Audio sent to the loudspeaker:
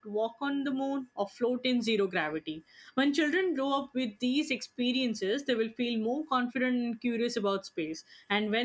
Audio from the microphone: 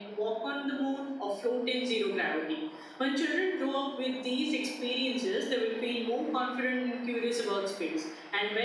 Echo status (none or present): present